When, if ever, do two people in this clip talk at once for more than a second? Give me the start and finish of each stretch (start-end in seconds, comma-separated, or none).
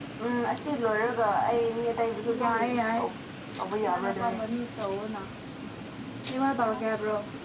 none